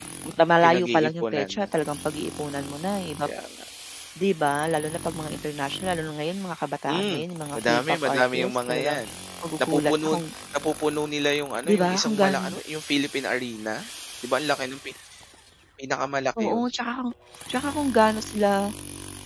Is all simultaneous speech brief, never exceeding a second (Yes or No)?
No